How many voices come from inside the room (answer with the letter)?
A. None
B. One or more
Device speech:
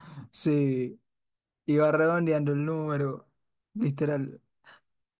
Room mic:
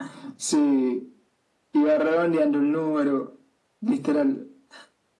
A